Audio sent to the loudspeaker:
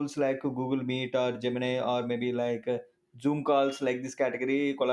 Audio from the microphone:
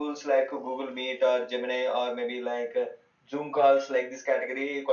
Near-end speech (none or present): none